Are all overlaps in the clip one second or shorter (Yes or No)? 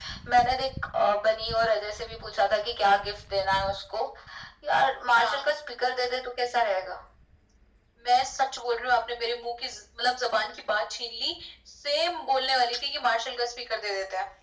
Yes